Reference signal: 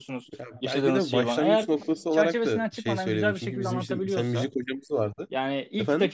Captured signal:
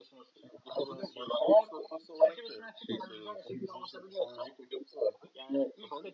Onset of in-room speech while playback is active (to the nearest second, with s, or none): none